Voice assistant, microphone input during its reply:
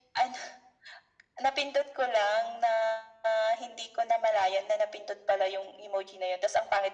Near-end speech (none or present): none